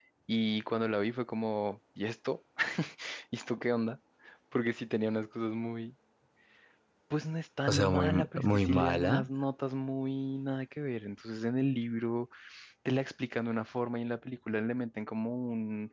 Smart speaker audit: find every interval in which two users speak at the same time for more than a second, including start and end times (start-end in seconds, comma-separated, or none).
7.7-9.3